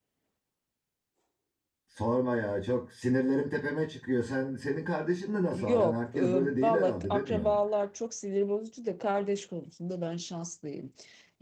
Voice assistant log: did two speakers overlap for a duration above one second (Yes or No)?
Yes